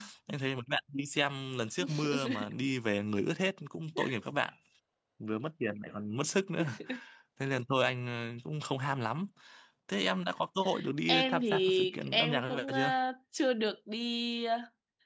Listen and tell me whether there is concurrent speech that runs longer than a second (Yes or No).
Yes